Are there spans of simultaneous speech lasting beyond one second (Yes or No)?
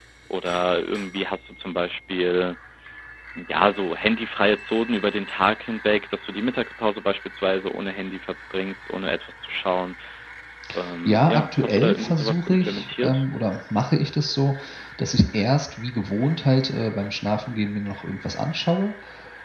Yes